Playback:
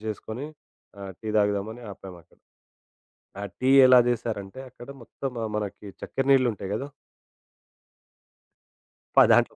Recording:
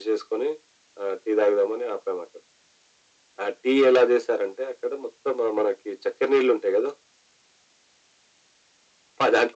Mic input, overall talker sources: echo only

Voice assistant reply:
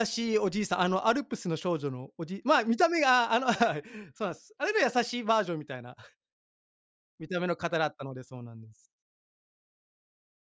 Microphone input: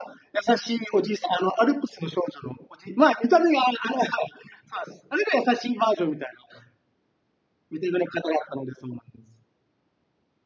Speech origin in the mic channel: echo only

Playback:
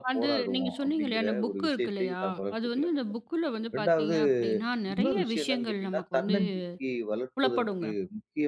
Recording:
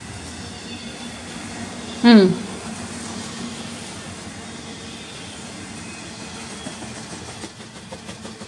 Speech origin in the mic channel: user only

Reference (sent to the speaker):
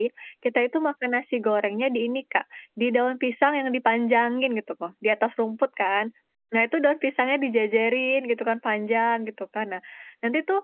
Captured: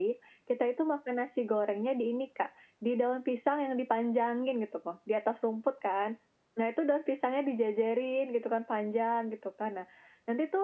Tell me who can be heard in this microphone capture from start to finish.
echo only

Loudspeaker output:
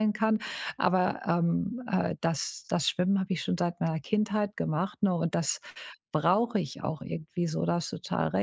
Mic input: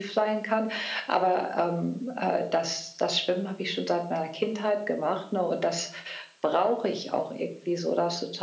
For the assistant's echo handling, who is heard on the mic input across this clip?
echo only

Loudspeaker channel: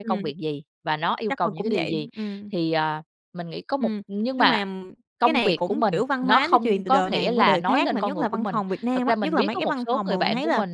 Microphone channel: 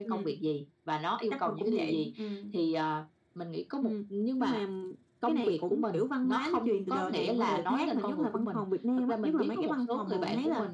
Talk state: echo only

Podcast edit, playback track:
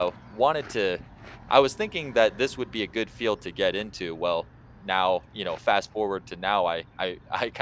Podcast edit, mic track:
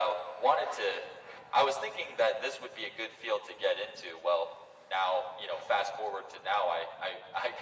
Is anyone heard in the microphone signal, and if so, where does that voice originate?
echo only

